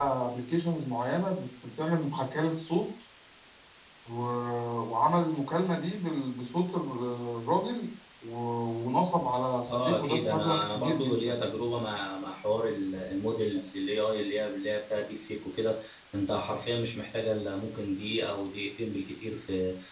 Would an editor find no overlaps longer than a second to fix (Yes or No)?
No